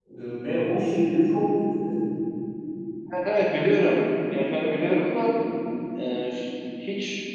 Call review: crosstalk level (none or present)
none